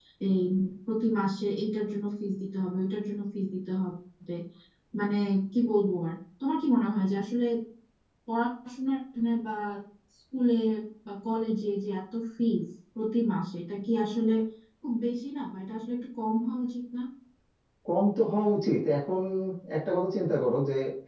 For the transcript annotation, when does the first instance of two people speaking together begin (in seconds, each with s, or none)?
none